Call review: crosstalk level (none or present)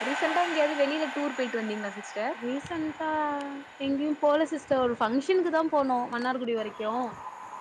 none